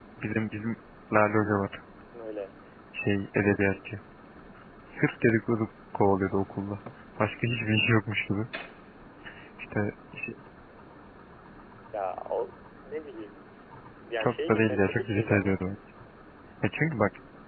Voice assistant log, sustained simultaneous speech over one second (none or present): present